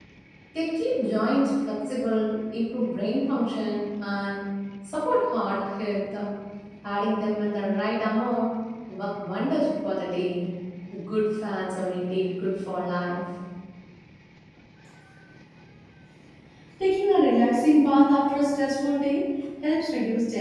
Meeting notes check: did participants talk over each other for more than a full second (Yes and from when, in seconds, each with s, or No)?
No